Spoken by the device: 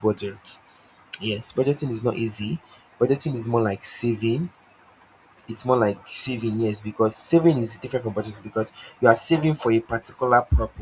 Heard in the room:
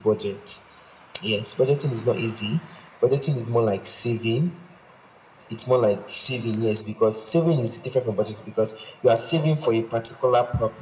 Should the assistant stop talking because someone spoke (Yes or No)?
No